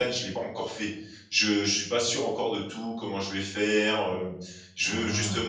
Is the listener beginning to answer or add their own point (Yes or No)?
No